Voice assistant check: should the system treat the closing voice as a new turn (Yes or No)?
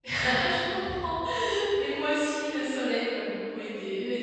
No